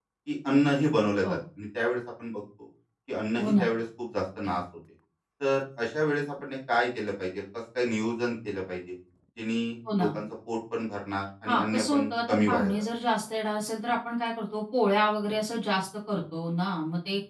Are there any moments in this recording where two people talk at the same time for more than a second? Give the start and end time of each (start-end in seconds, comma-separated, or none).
11.5-12.9